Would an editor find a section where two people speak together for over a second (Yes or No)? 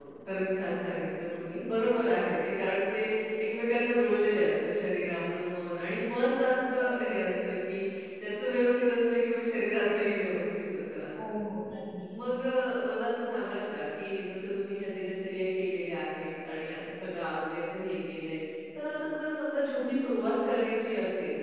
No